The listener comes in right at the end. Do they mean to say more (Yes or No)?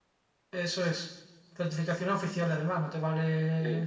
No